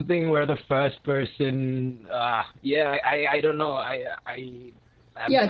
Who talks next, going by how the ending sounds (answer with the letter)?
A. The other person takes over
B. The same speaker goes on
A